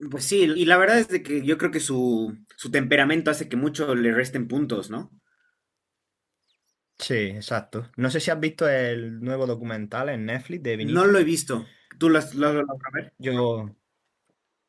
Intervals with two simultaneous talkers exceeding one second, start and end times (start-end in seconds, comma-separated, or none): none